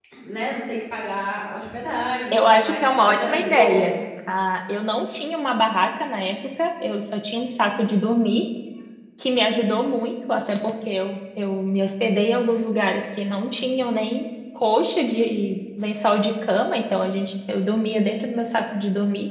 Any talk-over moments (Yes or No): Yes